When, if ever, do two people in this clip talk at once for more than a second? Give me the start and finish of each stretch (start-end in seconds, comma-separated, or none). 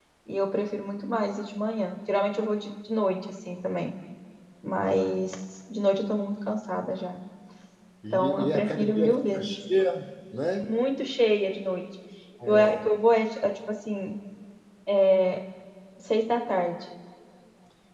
8.1-9.5